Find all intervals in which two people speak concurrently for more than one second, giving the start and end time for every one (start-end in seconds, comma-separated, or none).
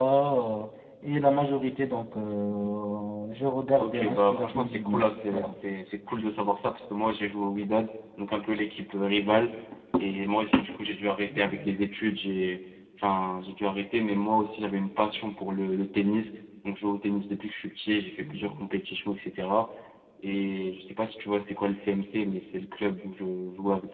3.8-5.5